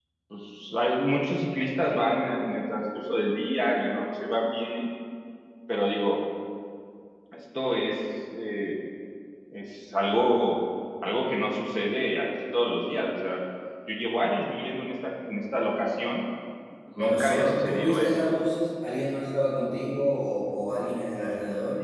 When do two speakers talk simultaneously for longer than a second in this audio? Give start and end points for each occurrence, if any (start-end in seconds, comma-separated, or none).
17.0-18.4